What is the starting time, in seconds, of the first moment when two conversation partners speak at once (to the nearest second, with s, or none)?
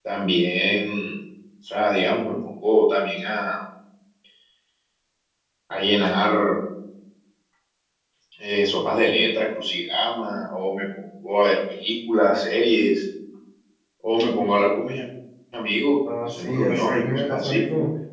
16 s